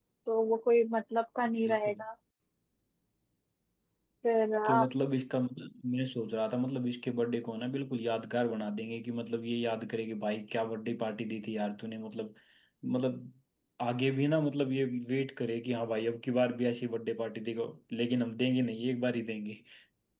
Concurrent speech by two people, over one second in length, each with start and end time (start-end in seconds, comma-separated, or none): none